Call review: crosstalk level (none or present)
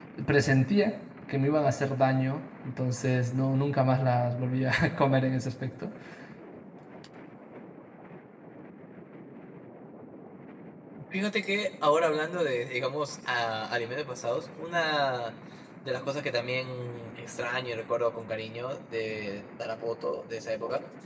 none